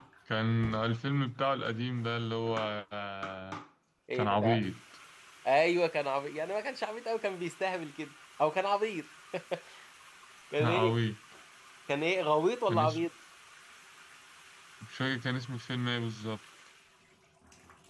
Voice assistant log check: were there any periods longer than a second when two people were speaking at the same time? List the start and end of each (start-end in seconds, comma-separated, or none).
none